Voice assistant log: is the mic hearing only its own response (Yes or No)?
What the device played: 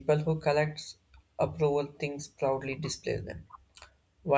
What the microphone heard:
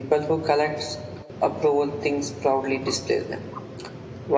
Yes